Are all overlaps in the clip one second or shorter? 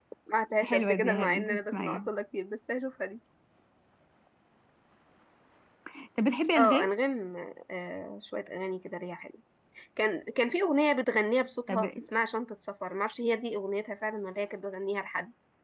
No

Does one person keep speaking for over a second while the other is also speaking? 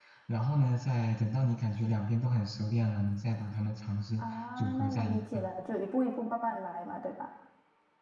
Yes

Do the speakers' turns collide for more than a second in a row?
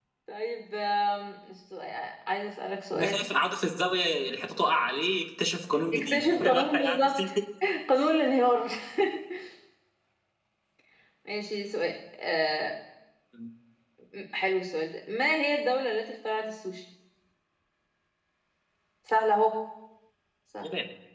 Yes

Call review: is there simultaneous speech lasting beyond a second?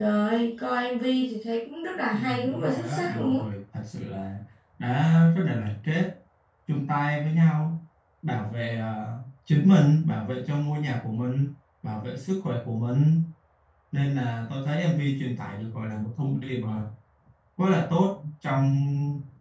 Yes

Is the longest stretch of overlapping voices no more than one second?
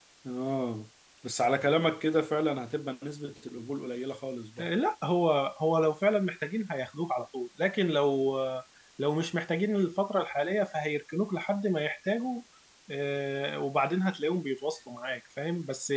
Yes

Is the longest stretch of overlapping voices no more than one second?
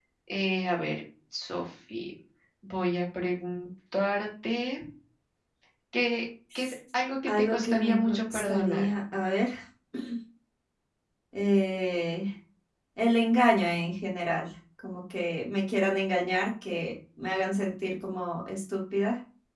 No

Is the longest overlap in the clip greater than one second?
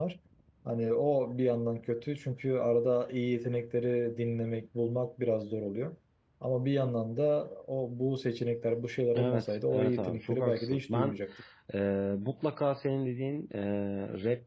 Yes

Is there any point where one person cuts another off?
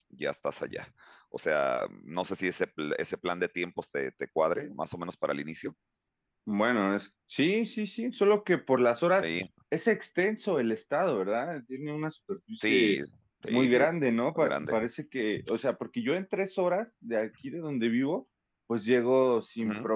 Yes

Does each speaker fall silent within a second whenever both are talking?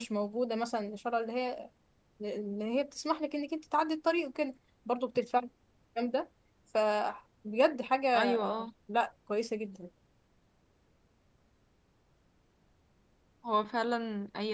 Yes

